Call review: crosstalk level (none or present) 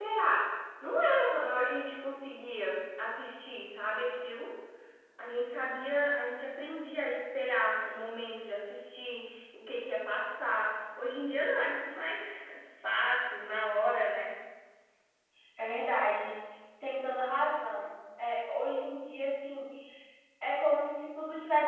none